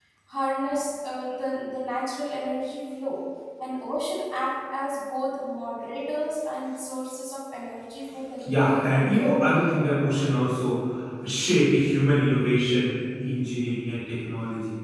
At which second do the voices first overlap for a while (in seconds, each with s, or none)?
8.4 s